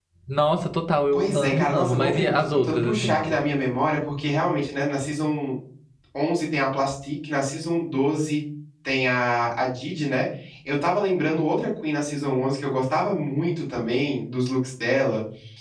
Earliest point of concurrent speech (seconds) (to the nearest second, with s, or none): 1 s